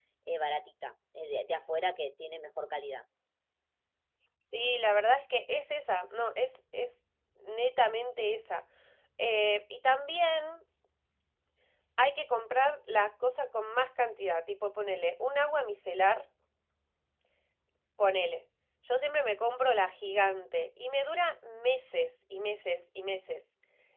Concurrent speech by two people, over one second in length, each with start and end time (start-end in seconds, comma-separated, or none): none